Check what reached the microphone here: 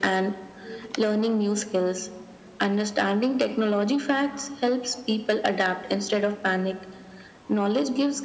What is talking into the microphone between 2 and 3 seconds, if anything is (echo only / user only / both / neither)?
echo only